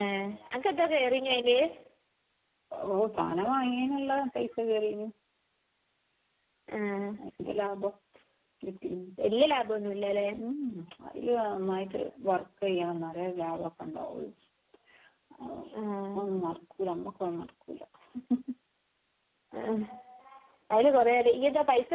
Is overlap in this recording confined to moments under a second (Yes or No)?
Yes